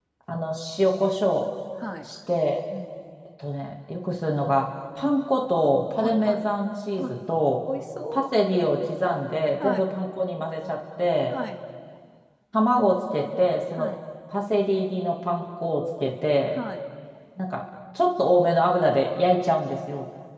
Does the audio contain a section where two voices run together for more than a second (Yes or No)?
No